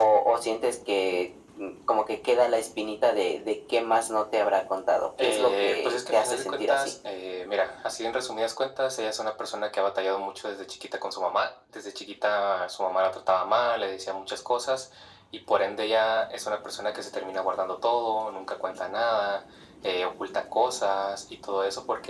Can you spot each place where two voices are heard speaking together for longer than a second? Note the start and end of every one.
5.2-6.9

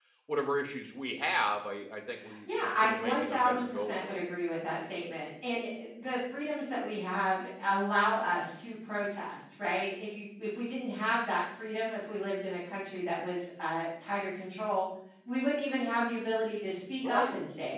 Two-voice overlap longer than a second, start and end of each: 2.5-4.2

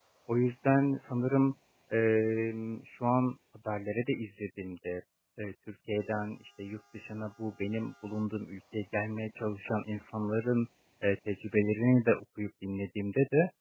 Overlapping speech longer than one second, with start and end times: none

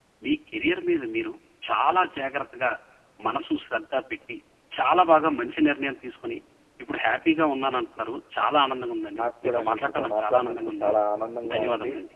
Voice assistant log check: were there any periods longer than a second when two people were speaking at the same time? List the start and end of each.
9.2-10.9

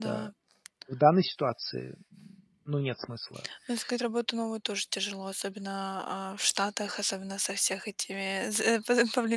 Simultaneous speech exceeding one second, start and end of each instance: none

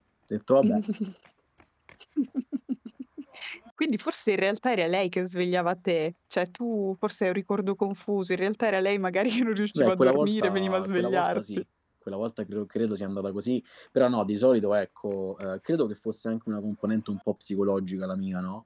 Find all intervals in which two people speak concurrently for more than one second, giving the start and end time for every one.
9.8-11.4

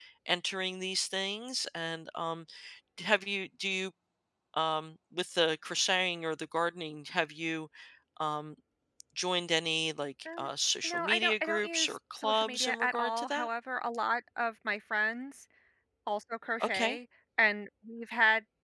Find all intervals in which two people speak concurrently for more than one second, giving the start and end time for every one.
10.8-13.5

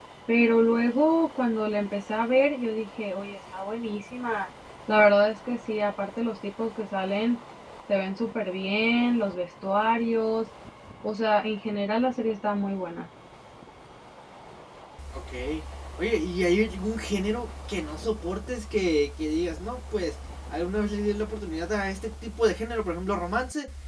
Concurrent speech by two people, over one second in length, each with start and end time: none

